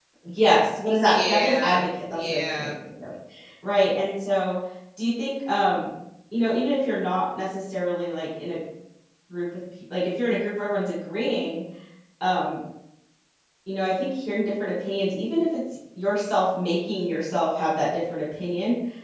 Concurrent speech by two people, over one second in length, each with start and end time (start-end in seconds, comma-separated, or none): 1.0-2.7